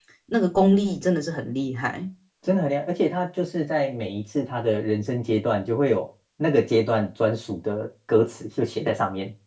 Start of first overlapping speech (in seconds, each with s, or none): none